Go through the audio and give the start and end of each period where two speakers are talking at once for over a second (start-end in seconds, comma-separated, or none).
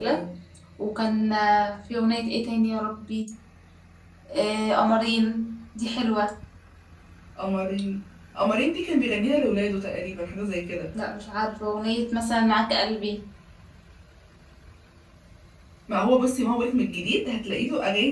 none